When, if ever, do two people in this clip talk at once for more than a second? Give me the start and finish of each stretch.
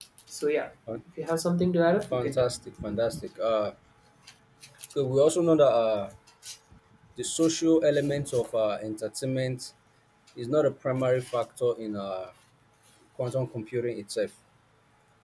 none

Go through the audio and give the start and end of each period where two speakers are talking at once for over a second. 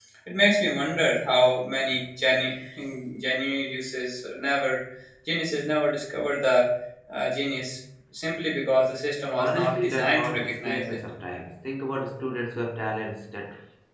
9.4-11.0

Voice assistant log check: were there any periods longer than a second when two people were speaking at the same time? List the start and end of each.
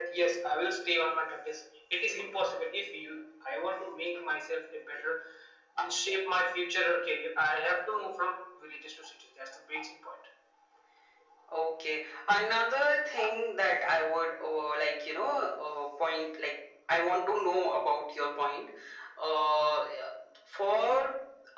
none

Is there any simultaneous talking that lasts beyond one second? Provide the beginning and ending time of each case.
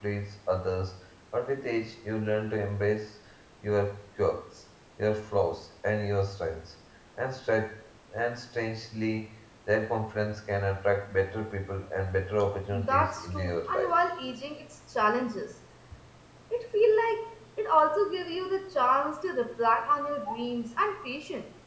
12.7-13.9

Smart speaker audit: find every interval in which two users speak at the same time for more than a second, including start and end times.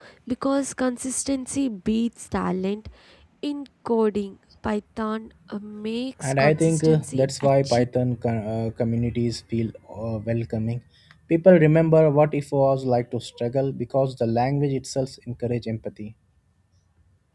6.3-7.8

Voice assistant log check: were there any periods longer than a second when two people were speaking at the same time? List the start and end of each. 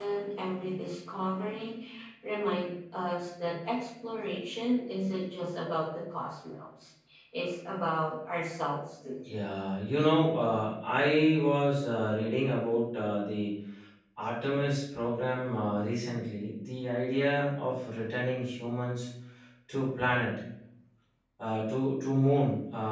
none

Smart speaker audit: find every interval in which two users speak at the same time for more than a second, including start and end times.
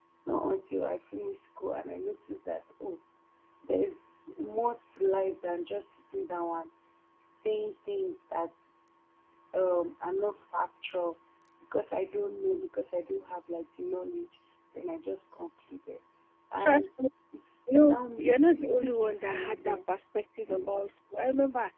17.8-19.8

